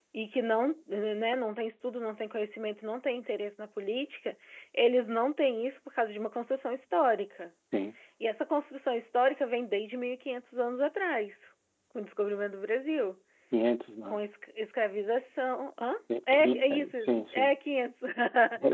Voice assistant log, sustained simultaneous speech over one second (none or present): present